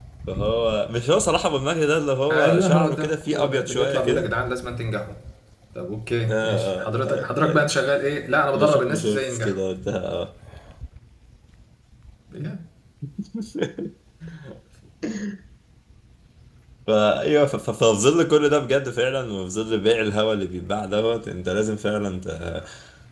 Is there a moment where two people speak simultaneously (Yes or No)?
Yes